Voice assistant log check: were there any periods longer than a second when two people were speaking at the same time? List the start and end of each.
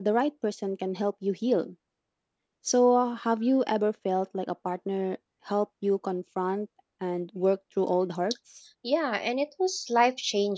none

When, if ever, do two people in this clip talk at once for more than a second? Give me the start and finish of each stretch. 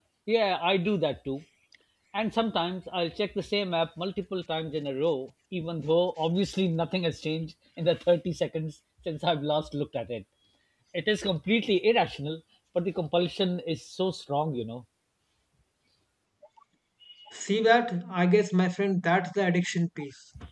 none

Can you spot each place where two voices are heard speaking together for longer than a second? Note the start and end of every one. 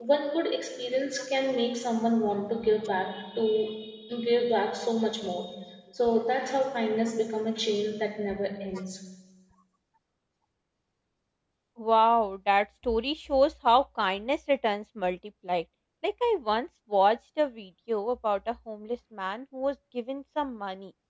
none

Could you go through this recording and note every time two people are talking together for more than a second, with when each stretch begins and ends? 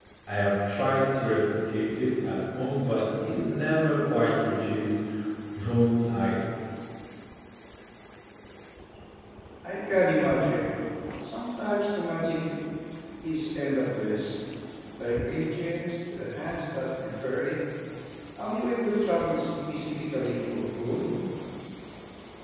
none

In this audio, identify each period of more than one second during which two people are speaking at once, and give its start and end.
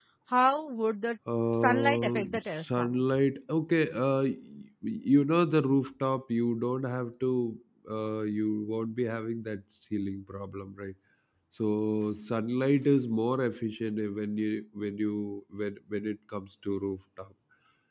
1.6-2.9

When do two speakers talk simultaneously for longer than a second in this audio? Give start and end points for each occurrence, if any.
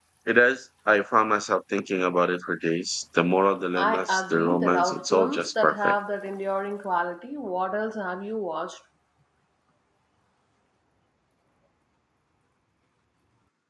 3.8-6.0

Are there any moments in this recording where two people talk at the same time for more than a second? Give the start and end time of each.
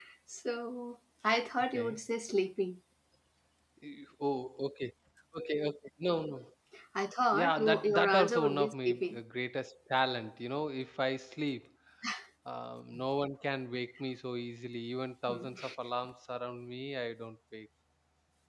7.4-9.2

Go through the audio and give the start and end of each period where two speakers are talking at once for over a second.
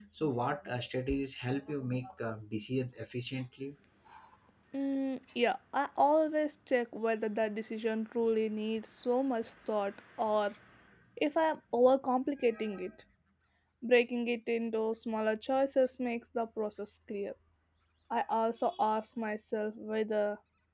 none

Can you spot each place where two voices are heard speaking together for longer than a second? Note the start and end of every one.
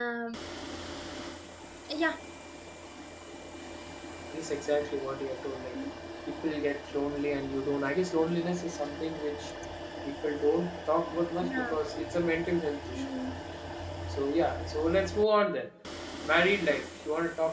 none

